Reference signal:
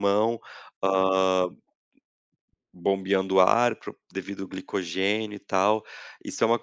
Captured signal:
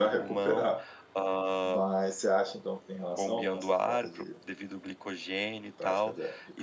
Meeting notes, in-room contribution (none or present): present